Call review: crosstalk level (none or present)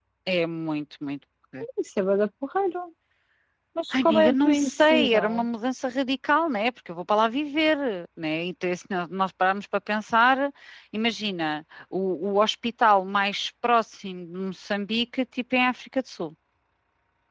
present